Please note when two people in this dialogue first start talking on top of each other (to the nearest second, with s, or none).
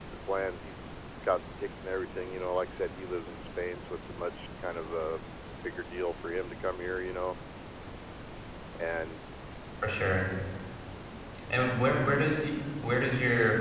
none